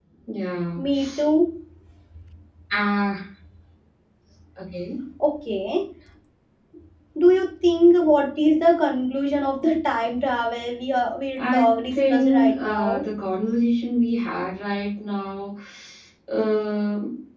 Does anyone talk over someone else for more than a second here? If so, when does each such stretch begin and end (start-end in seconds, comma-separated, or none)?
11.4-13.0